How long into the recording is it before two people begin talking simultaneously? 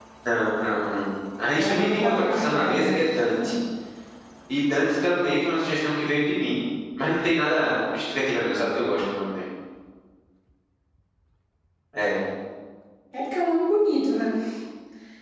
2 s

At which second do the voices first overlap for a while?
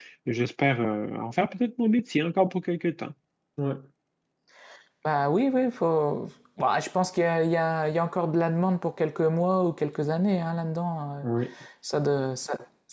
none

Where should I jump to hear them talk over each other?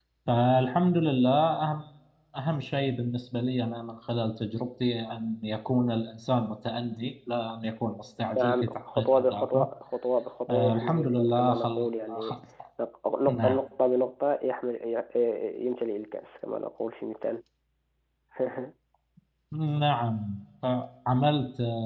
8 s

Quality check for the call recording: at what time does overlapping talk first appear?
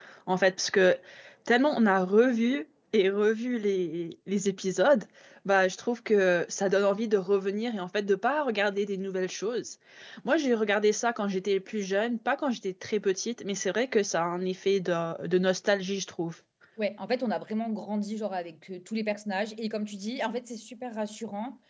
none

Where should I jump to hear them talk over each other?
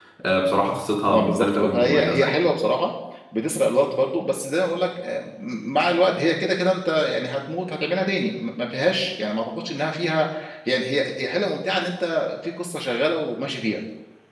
1 s

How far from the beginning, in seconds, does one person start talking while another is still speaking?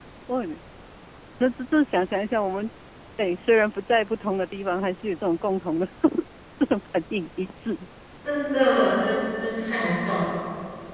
none

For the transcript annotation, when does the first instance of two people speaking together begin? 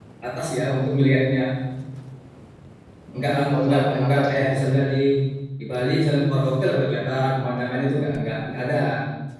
3 s

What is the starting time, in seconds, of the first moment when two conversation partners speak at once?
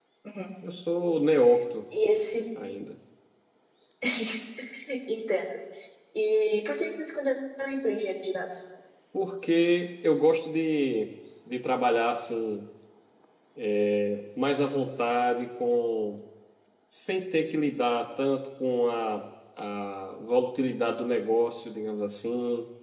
none

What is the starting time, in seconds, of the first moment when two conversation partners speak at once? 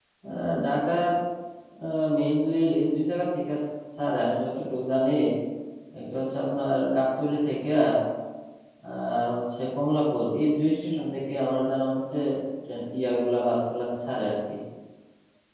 none

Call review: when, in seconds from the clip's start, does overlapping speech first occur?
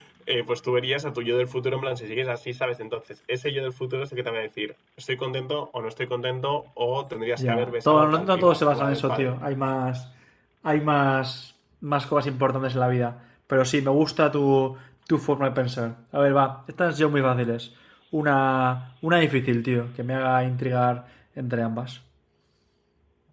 7 s

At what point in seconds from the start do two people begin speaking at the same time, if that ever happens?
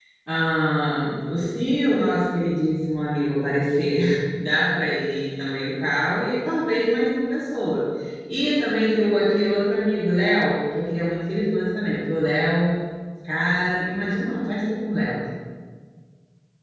none

